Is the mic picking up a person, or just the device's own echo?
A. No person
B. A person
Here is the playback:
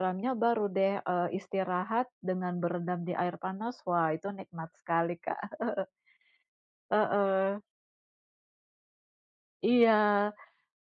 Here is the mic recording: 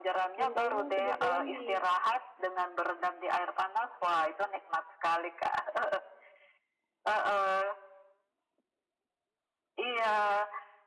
B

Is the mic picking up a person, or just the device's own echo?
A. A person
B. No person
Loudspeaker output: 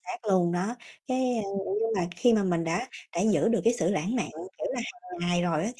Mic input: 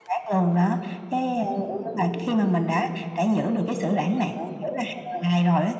B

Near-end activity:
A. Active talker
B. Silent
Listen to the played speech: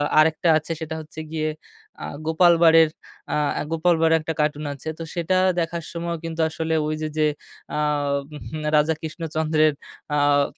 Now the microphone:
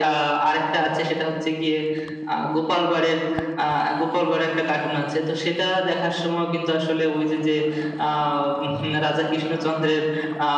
B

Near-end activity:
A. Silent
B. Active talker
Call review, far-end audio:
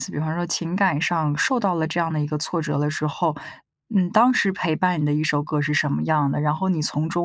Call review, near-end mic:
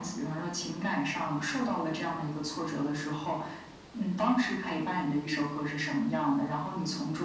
A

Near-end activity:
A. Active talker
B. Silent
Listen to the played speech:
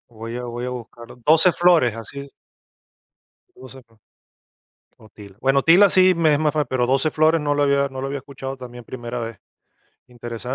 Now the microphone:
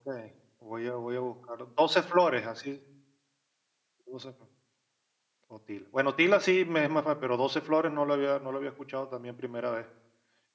B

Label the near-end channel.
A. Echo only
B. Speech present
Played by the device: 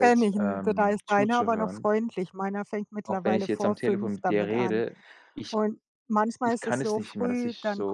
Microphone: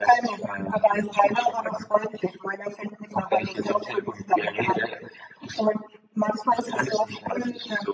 A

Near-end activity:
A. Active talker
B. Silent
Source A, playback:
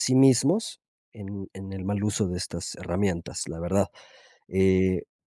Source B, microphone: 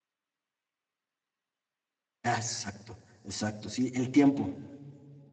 A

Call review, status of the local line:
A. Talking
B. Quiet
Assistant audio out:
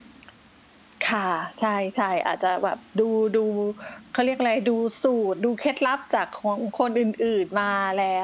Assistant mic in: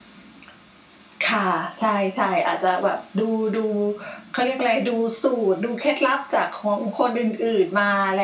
B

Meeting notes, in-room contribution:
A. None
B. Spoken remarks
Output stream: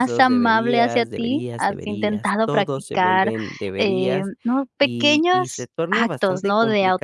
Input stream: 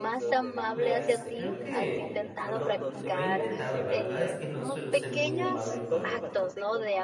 B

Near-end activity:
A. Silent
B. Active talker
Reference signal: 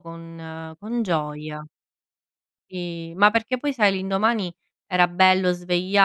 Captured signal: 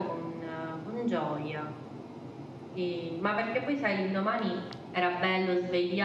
A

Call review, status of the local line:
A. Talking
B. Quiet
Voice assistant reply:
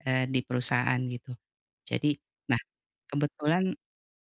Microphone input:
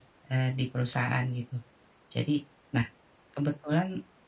B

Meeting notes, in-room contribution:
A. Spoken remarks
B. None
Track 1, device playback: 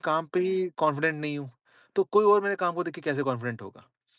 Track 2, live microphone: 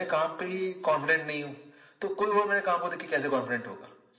B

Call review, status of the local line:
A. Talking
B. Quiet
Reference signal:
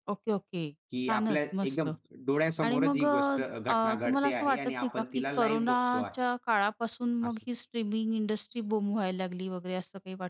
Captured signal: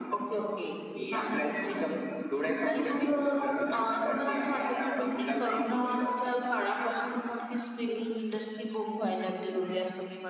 B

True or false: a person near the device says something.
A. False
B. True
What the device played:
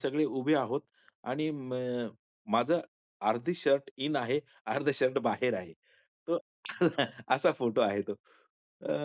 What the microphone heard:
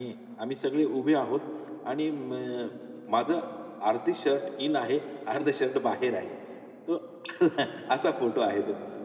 A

